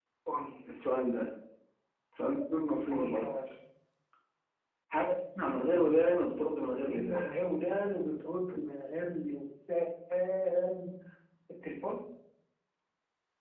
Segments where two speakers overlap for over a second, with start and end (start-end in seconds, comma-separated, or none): none